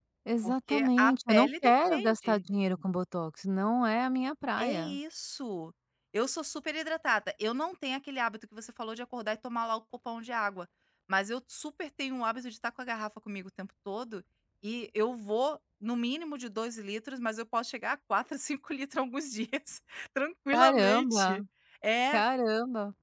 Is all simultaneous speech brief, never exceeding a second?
No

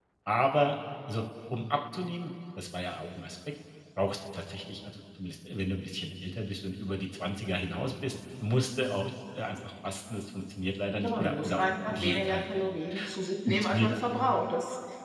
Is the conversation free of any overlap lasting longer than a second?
No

